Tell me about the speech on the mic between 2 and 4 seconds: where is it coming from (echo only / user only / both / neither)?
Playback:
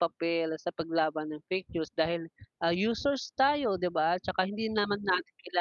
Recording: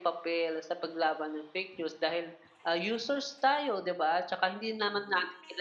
echo only